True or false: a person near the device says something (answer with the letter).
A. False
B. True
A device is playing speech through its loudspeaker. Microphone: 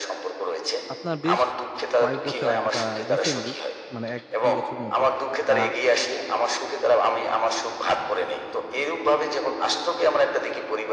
B